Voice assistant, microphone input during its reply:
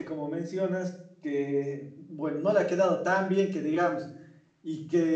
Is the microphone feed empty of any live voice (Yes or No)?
No